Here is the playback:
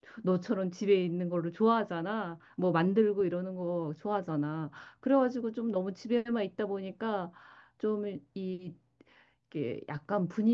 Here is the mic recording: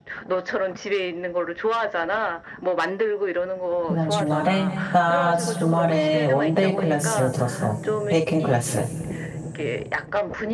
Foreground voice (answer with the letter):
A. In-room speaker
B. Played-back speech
A